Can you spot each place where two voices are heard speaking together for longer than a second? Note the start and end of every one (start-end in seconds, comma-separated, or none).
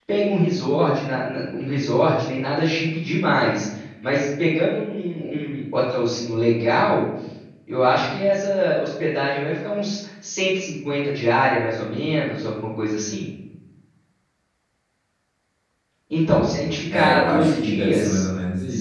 16.9-18.2